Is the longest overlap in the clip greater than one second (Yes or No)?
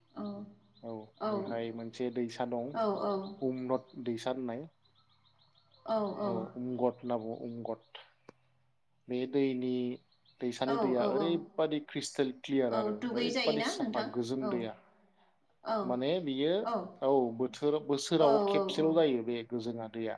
Yes